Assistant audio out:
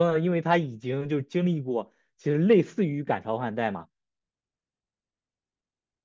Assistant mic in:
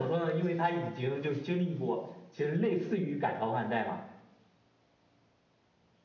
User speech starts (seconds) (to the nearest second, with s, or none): none